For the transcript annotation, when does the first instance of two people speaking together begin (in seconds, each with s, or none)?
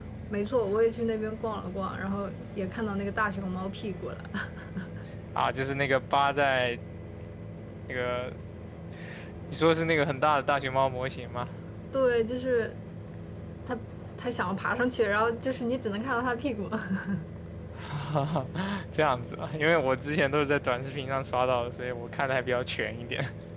none